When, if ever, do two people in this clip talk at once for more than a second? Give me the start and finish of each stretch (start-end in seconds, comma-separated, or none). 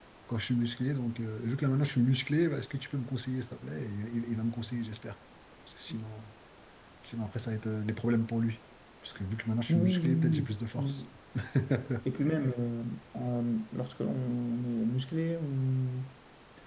9.7-11.0